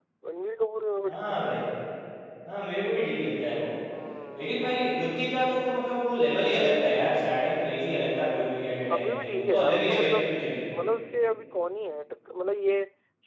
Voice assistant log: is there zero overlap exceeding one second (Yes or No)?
No